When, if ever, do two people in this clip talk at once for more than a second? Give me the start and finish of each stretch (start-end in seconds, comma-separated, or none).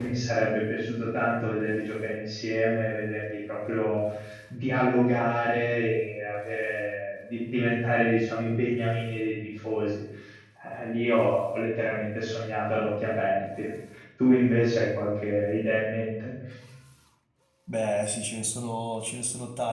none